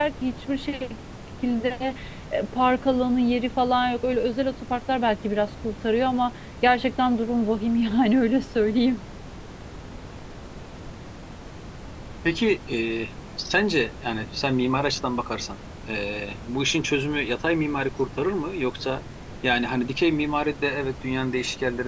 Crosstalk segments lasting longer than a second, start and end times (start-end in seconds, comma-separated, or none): none